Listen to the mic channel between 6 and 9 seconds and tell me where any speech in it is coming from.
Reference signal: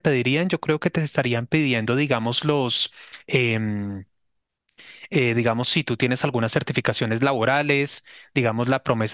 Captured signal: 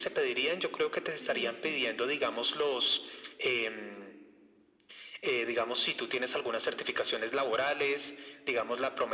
echo only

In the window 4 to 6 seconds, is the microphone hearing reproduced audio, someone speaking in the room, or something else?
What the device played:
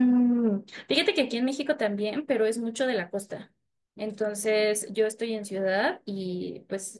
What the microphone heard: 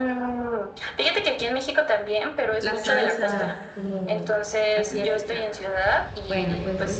both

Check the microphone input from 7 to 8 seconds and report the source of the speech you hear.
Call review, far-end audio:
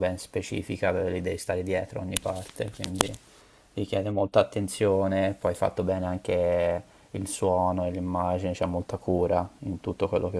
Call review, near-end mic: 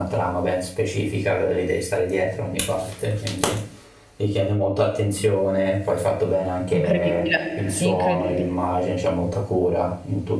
both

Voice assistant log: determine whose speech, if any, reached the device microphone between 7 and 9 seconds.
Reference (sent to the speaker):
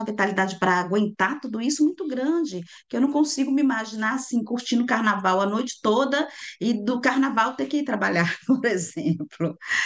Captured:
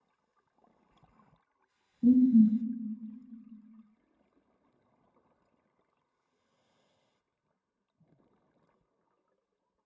neither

